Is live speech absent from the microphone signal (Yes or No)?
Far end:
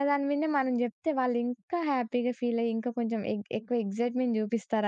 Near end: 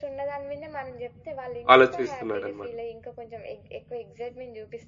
No